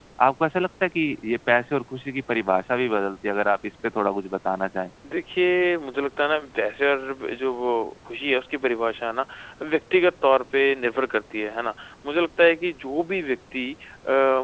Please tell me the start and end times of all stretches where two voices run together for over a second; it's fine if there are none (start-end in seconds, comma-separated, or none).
none